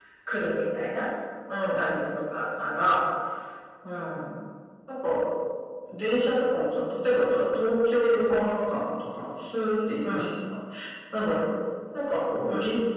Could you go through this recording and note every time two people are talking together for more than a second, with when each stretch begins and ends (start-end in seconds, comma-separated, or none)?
none